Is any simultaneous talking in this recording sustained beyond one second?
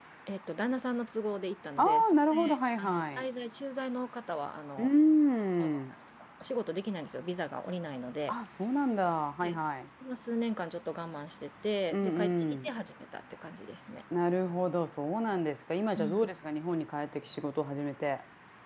Yes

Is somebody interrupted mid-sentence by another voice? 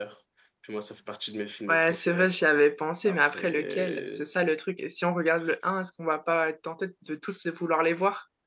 Yes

